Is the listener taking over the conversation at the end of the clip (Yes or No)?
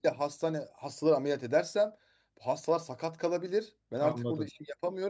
No